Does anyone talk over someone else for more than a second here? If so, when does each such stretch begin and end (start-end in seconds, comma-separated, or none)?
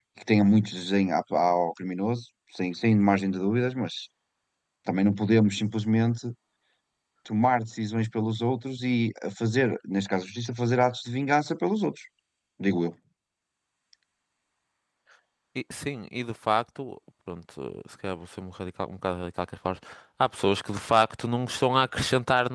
none